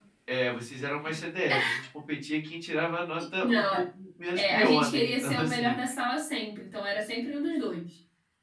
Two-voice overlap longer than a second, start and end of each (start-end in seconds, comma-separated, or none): 4.3-5.7